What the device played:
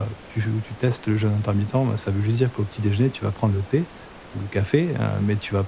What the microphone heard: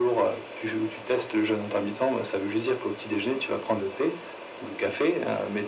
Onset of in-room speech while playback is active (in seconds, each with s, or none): none